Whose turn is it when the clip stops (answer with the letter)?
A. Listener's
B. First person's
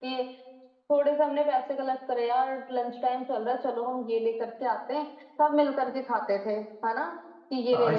A